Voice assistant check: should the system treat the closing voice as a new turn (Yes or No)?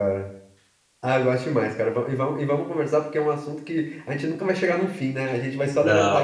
No